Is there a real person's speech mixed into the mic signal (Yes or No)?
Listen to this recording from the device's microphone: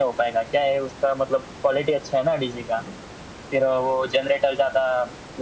No